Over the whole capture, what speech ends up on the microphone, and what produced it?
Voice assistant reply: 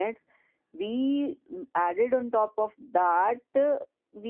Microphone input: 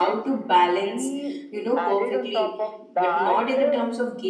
both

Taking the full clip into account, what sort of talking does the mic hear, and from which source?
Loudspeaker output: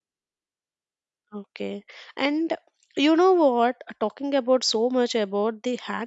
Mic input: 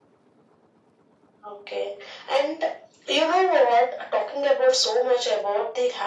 echo only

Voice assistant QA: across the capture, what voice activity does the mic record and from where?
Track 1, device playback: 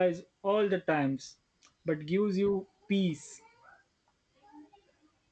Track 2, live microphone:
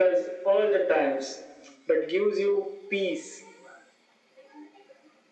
echo only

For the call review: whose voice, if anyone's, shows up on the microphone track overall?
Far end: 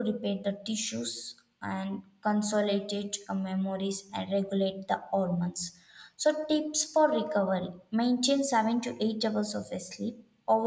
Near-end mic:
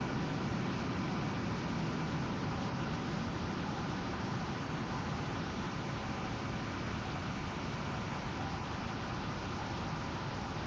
neither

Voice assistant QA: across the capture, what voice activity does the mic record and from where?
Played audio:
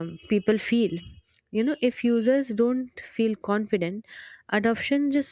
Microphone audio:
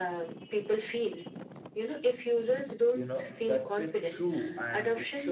both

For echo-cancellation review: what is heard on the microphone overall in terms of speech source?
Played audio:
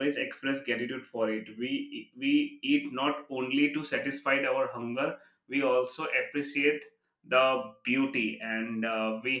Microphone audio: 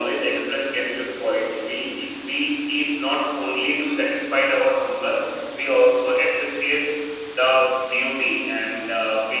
echo only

